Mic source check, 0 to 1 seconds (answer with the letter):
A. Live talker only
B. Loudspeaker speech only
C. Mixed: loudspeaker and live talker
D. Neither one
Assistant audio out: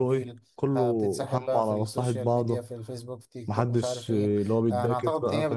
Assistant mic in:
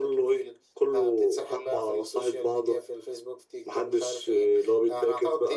B